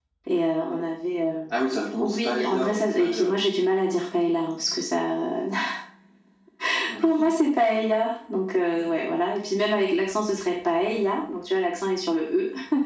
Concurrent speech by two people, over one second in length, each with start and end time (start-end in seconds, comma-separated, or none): 2.0-3.4